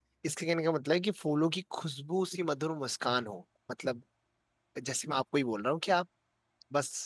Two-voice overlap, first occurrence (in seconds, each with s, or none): none